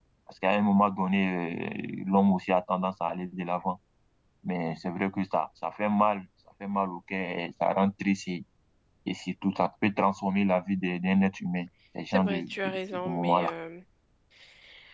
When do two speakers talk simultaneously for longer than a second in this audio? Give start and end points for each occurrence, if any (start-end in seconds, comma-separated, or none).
12.1-13.5